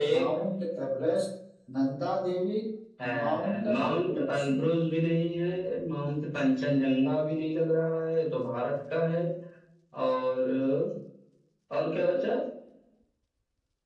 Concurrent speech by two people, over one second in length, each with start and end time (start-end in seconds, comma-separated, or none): 3.2-4.5